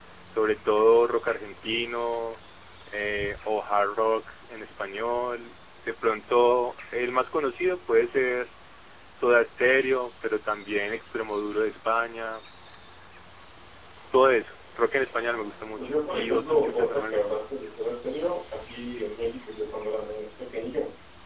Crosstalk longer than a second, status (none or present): present